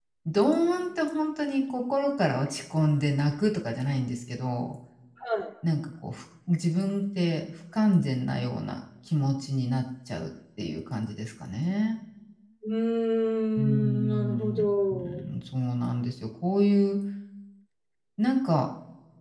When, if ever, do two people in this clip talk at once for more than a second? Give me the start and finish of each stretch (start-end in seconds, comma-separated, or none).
13.6-15.2